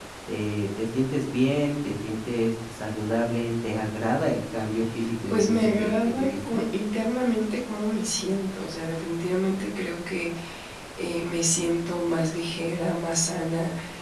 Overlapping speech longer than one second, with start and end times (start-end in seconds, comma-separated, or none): 5.3-6.6